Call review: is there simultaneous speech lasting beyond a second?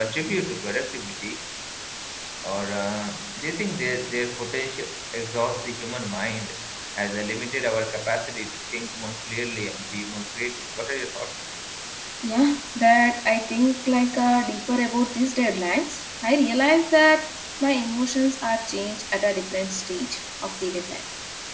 No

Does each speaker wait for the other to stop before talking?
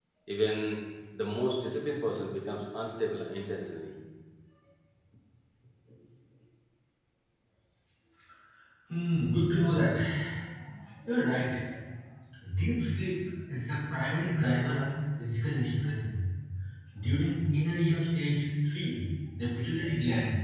Yes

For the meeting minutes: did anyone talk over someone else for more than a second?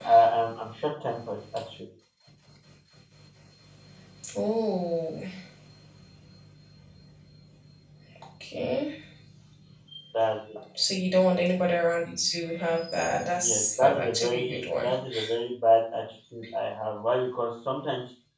Yes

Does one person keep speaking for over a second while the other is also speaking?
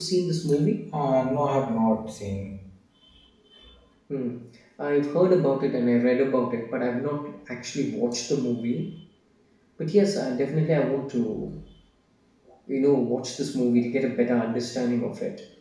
No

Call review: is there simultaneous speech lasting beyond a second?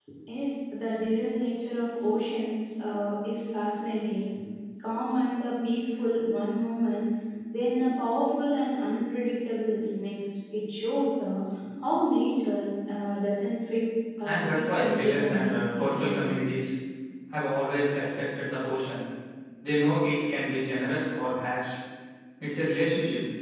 Yes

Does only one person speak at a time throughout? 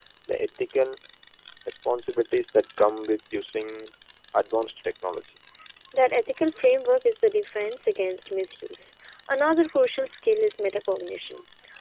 Yes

